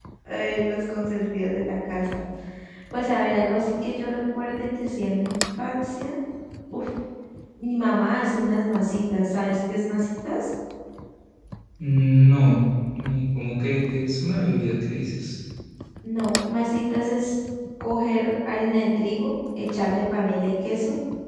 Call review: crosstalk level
none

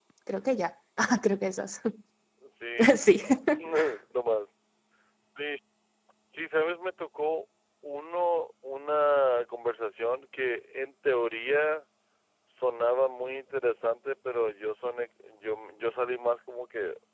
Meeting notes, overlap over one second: none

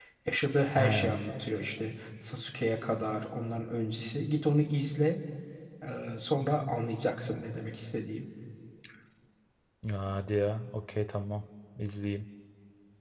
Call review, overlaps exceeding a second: none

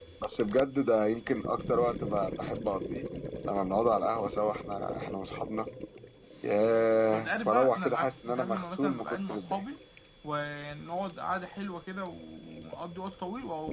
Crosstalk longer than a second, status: present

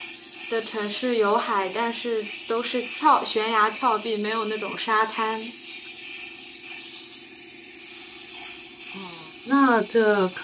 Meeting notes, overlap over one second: none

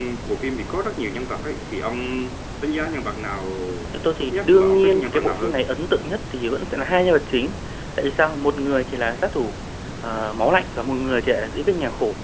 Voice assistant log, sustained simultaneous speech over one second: present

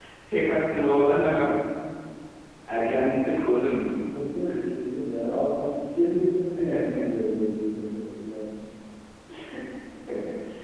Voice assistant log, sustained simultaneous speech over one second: none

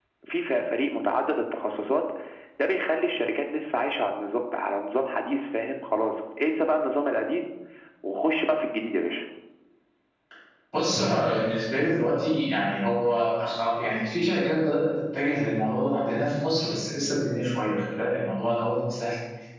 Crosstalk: none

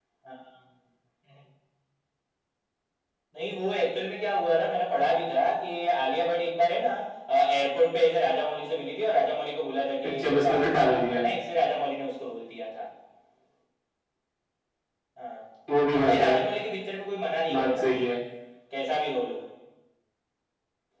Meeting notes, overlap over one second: present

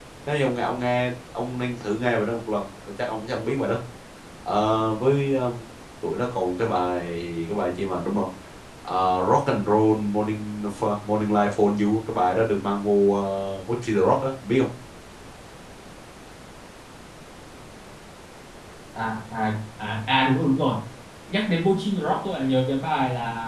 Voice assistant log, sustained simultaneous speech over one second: none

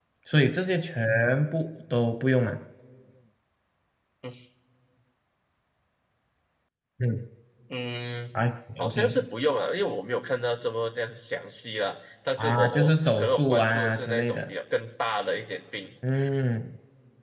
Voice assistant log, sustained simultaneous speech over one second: present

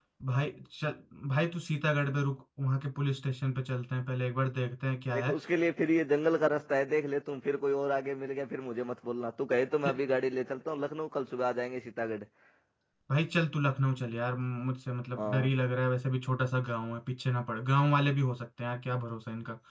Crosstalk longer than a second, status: none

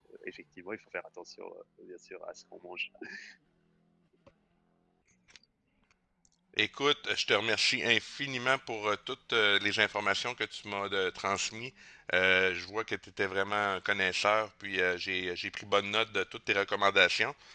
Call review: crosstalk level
none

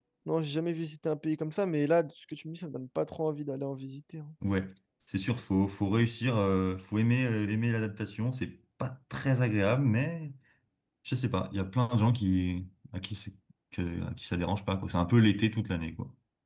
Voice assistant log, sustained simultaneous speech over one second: none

